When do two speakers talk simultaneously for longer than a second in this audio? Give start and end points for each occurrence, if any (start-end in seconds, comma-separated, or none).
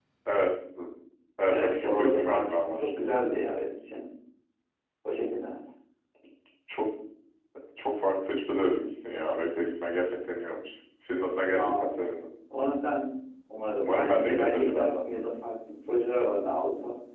1.5-2.9, 13.8-15.0